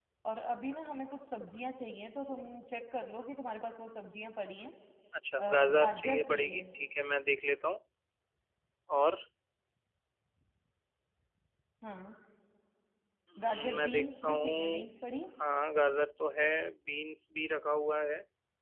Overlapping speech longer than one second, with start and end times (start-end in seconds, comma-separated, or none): 5.4-6.6, 13.4-15.1